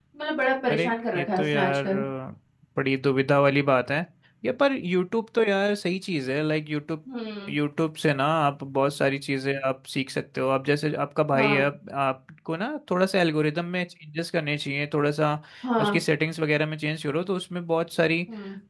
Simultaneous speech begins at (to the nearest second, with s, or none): 1 s